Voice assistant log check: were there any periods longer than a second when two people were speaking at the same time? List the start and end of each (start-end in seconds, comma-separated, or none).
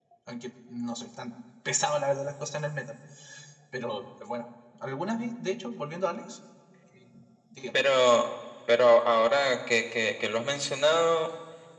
none